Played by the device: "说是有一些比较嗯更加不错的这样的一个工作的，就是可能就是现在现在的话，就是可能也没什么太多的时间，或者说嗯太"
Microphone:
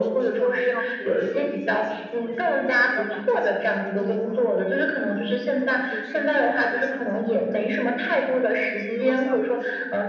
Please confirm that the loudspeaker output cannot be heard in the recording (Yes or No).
No